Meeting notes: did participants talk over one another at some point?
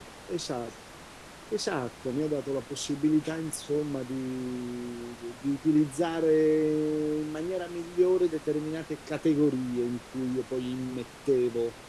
No

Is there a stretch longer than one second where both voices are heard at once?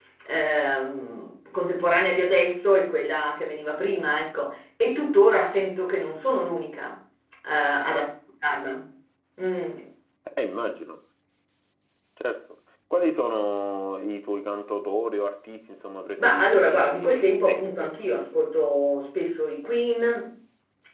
Yes, from 16.2 s

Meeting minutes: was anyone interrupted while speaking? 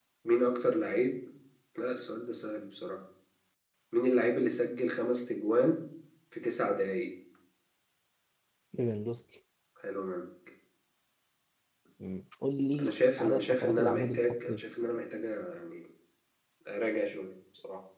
Yes, from 12.8 s

